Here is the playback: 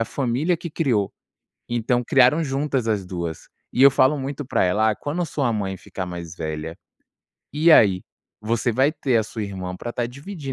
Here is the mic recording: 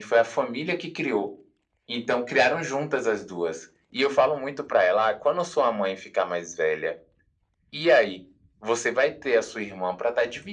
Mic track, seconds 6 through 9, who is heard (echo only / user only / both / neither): echo only